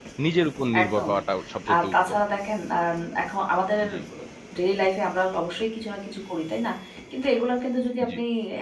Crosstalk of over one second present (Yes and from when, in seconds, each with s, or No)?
No